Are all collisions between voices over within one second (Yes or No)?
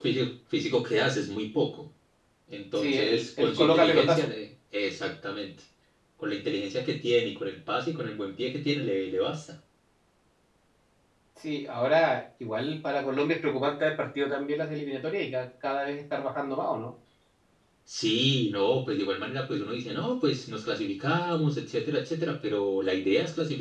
No